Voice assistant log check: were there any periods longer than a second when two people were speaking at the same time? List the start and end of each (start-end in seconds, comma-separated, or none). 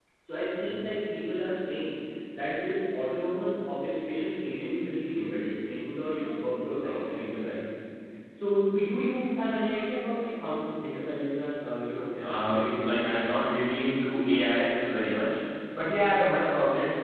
12.2-13.4